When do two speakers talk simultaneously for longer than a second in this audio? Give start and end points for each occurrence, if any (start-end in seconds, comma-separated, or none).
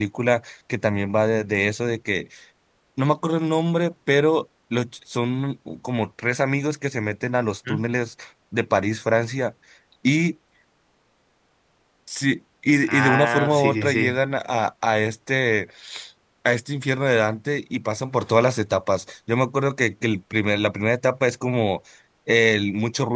12.8-14.1